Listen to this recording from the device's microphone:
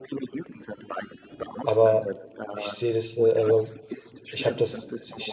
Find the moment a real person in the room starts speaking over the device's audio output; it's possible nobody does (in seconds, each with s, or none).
1.6 s